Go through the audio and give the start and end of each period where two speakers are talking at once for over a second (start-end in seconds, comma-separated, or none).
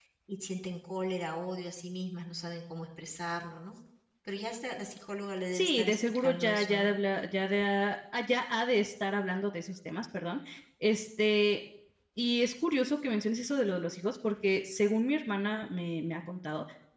5.5-6.9